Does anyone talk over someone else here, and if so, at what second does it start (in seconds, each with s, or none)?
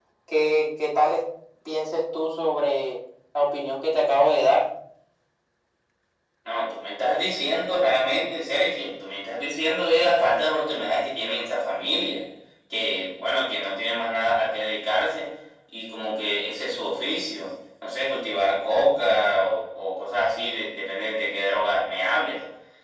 none